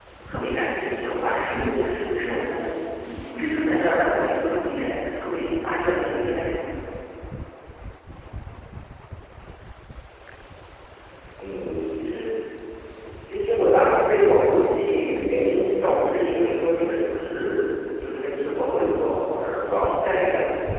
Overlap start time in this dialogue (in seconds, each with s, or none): none